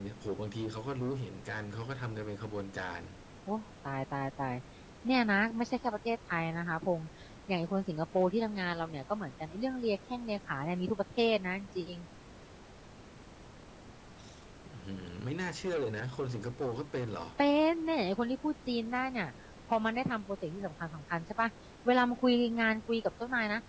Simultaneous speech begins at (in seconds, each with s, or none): none